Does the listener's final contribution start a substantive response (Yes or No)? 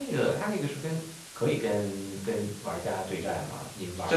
Yes